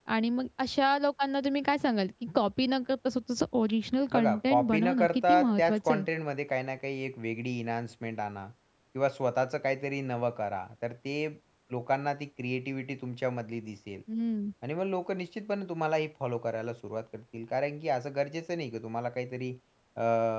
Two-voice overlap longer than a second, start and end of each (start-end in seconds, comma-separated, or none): 4.1-6.0